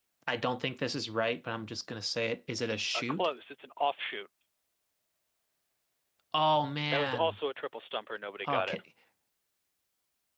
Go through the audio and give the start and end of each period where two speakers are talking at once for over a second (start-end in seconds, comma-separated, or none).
none